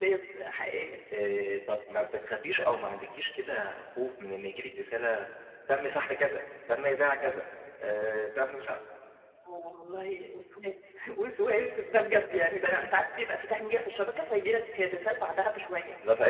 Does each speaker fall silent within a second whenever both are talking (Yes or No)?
Yes